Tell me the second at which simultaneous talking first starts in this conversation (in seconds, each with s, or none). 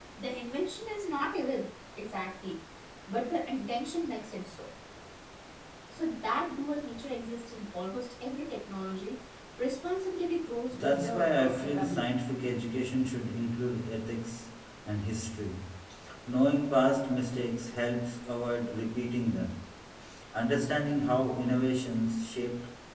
10.7 s